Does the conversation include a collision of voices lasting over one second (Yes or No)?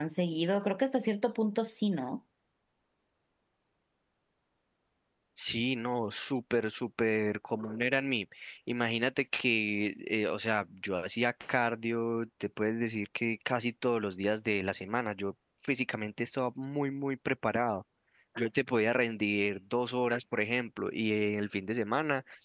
No